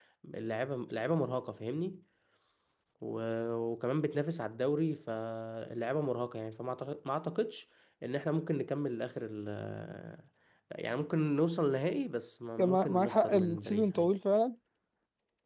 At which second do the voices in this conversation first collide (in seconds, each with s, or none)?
12.6 s